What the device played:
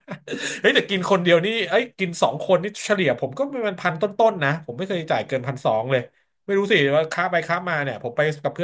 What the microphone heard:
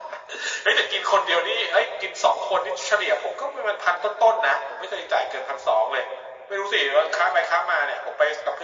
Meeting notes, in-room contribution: none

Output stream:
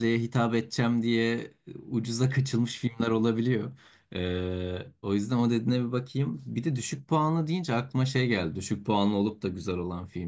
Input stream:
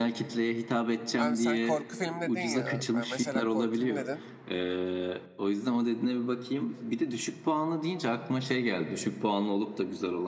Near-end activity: present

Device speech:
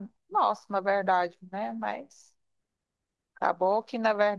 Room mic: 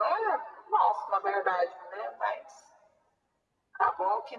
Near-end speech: none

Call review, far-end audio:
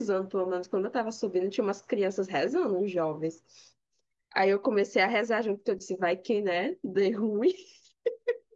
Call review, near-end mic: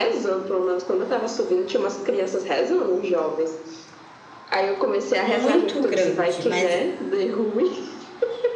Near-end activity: present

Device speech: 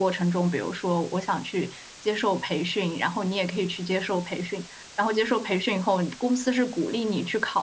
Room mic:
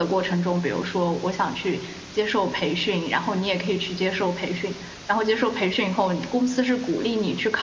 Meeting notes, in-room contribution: none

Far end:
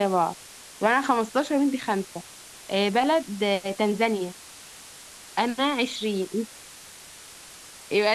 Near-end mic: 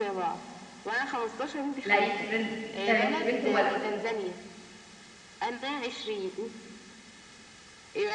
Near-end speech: present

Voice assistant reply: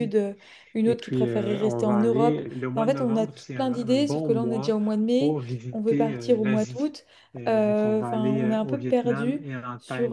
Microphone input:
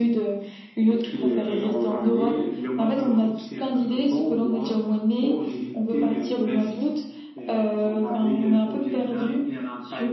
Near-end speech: none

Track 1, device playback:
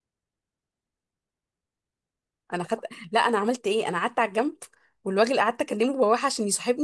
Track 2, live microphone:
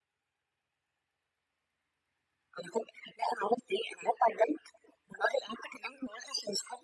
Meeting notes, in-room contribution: none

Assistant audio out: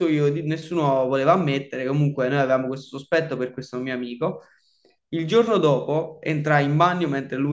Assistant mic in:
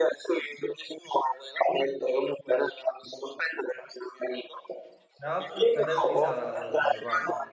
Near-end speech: present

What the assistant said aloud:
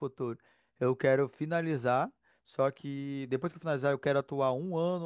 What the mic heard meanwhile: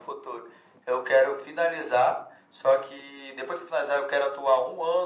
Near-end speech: none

